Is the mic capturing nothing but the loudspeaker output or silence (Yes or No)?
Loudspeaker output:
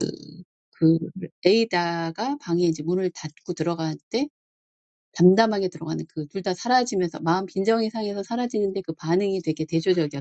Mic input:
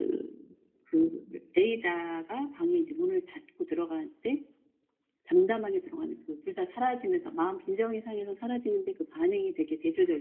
Yes